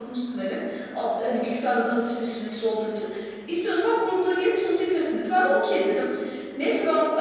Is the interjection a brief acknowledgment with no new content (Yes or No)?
Yes